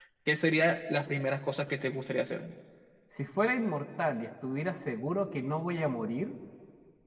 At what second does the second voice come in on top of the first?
none

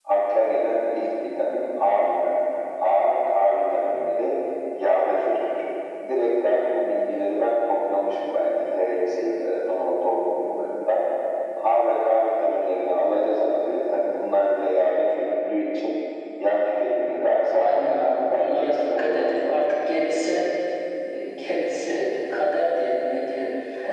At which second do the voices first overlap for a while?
17.6 s

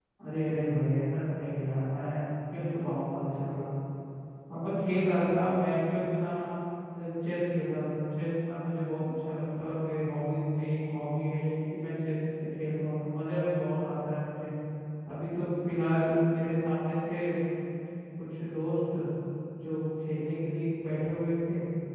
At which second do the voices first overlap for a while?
none

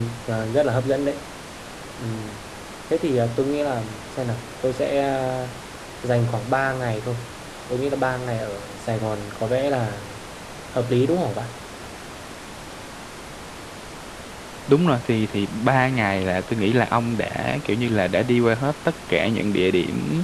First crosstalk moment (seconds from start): none

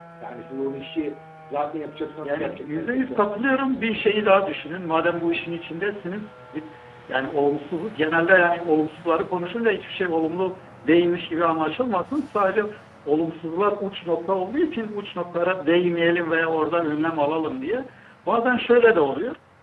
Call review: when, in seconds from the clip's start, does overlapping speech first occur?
2.2 s

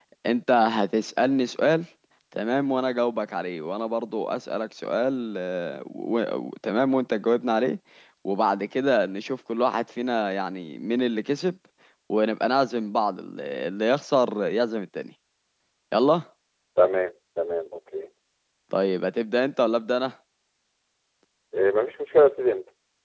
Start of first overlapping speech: none

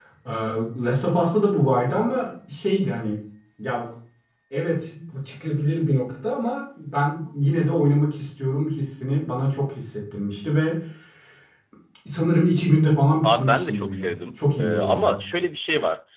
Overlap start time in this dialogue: 13.2 s

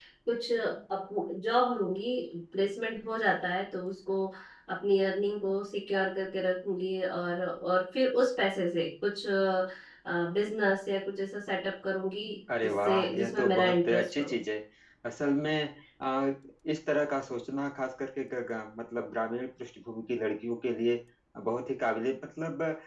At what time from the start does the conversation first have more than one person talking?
12.6 s

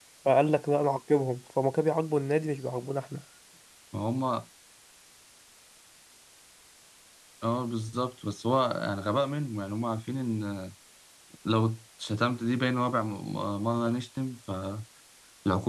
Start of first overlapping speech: none

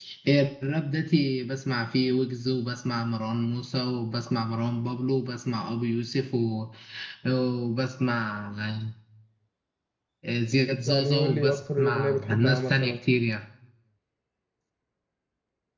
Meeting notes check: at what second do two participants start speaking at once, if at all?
10.9 s

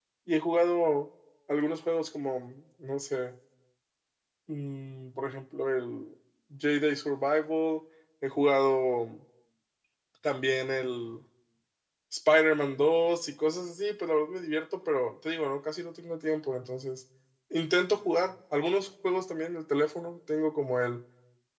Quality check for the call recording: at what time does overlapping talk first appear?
none

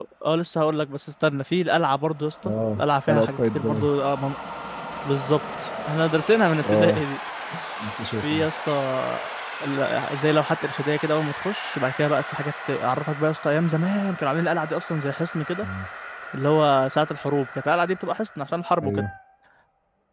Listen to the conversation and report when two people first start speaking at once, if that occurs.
2.4 s

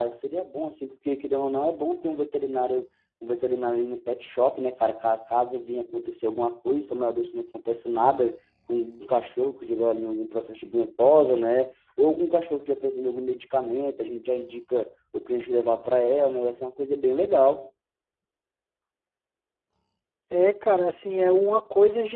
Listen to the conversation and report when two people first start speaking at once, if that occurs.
none

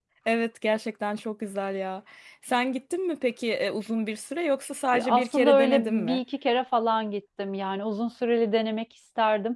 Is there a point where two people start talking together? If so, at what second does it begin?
4.9 s

